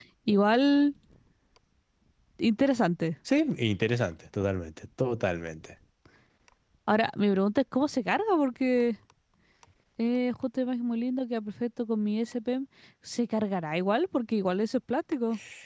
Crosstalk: none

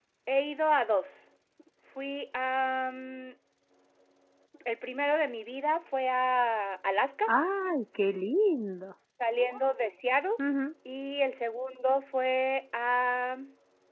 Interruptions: none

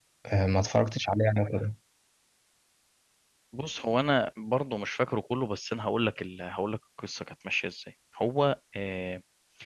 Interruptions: none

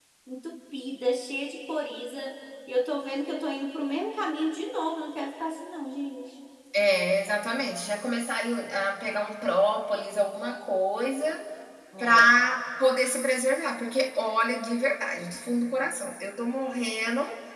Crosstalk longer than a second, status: none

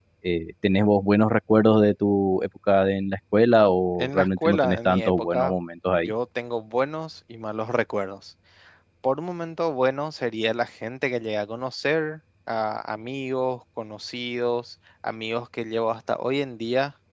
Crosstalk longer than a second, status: present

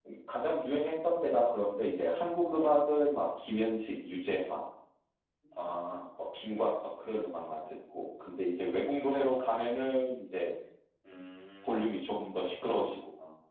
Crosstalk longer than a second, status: none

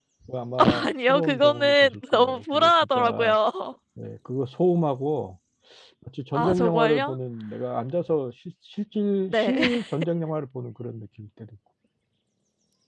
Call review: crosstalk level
present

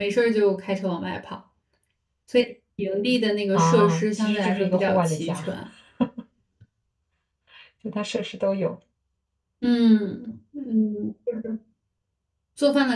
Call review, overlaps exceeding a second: present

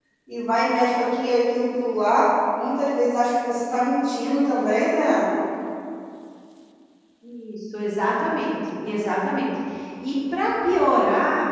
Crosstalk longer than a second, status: none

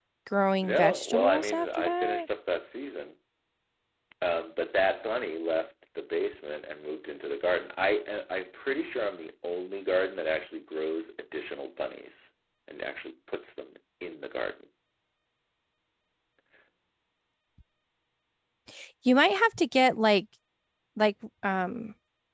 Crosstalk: present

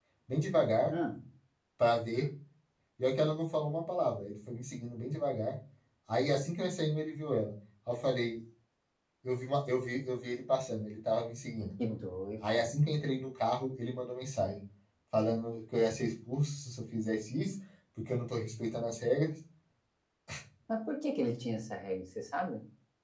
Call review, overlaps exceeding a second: none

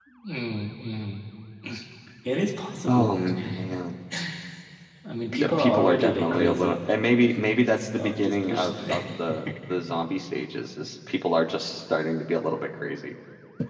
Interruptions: present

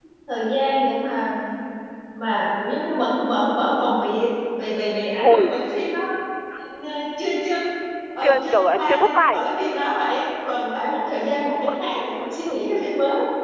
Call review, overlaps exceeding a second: present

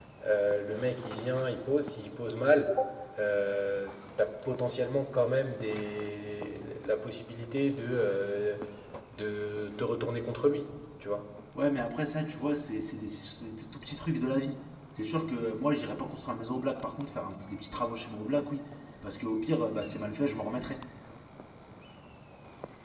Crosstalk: none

